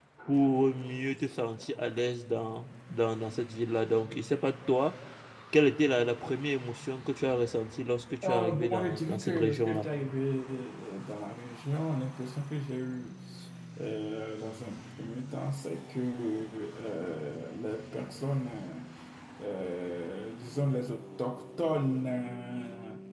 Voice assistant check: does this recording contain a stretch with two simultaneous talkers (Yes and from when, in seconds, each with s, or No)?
Yes, from 8.2 s